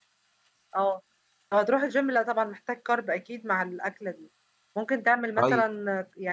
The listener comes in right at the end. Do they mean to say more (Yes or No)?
No